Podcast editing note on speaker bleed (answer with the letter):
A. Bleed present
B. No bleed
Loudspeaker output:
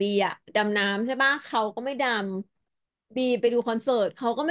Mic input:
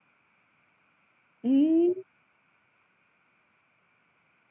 B